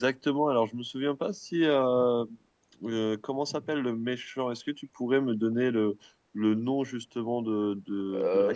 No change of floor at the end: Yes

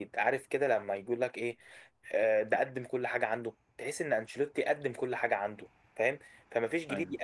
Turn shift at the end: No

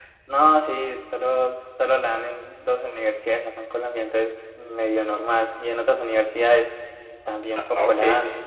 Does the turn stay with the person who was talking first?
No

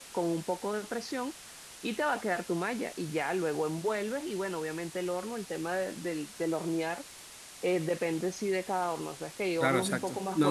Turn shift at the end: Yes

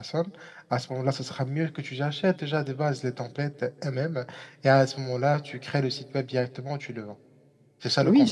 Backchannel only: No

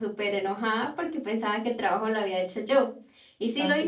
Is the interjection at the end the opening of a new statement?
No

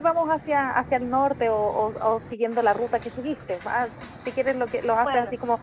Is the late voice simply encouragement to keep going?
Yes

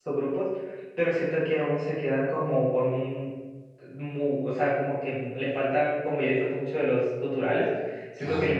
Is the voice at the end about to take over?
No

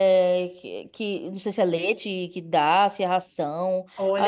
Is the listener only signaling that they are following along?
No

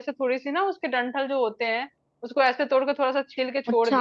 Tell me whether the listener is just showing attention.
Yes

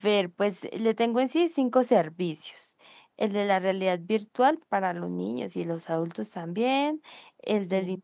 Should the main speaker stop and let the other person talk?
No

